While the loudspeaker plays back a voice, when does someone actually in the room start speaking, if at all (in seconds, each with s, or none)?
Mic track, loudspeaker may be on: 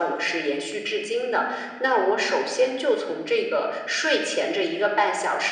none